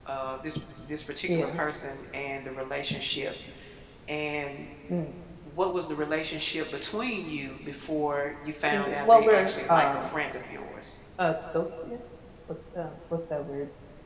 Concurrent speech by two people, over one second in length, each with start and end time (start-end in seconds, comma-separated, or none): 8.7-10.1